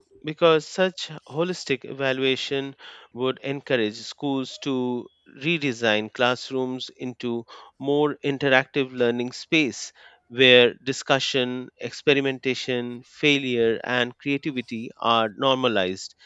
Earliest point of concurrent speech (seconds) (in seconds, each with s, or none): none